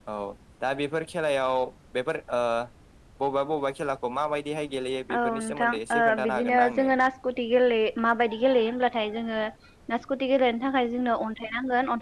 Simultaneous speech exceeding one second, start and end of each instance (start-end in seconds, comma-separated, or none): 5.2-6.9